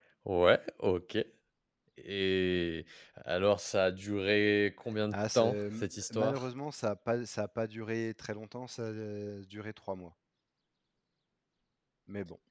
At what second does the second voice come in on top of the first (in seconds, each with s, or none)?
5.1 s